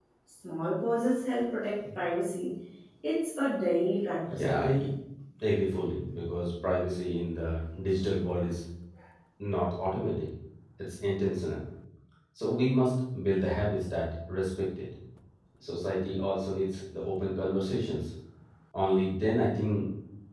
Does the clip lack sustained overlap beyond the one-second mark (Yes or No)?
Yes